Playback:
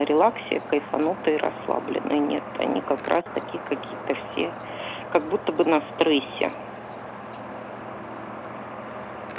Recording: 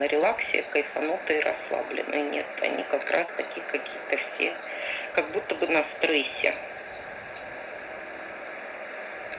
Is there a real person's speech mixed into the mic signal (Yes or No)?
No